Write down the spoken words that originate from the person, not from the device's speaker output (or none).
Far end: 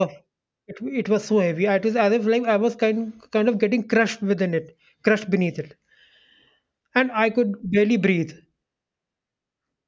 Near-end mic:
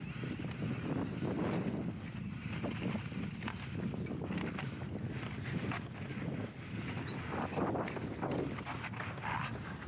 none